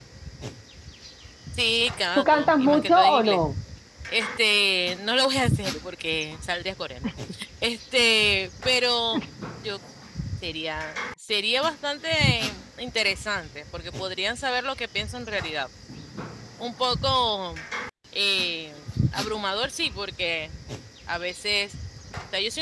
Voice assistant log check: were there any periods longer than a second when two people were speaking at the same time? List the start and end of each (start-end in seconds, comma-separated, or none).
2.2-3.5